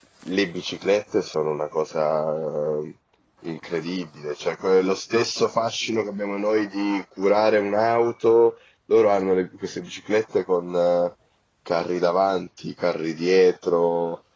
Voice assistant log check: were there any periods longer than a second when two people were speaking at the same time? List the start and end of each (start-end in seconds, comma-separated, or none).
none